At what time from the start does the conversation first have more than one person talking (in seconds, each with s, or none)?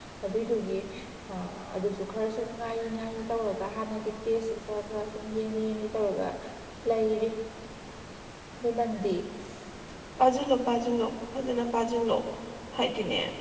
none